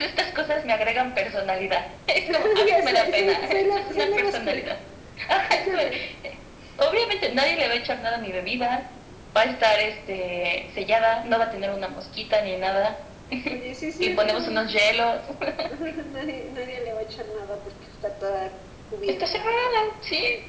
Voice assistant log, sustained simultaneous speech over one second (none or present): present